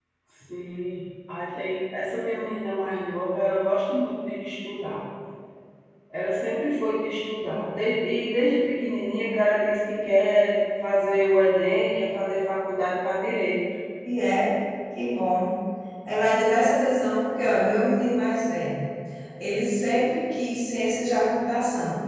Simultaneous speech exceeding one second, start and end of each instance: none

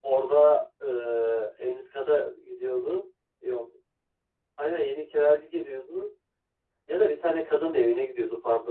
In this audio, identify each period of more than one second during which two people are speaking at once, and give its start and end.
none

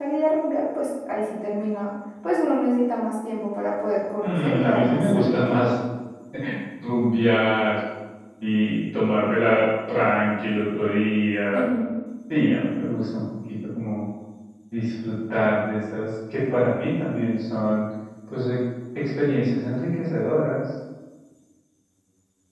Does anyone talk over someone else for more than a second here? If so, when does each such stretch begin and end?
4.2-5.5

